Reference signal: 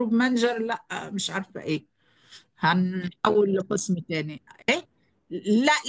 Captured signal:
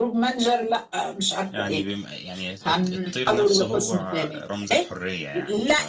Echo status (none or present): present